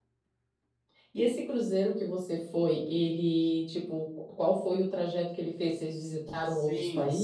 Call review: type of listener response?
taking over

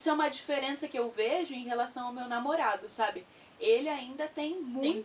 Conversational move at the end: listening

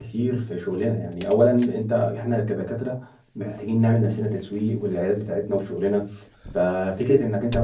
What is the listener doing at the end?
listening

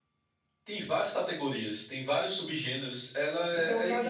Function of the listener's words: taking over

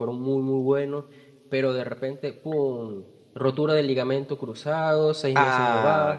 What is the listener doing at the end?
listening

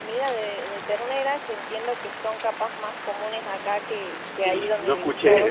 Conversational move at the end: taking over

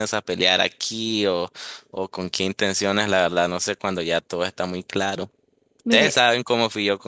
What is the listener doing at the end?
listening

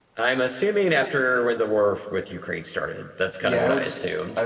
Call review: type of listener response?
taking over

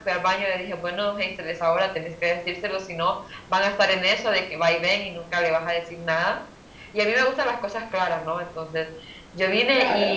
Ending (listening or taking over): listening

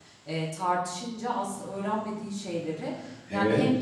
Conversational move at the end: listening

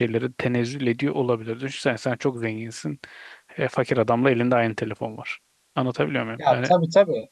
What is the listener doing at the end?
taking over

